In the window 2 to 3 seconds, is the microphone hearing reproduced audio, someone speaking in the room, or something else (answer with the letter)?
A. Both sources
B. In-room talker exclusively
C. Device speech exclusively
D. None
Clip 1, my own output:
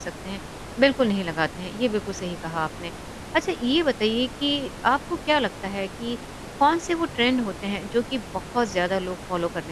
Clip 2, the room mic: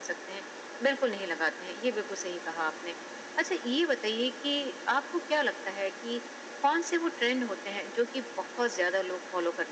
C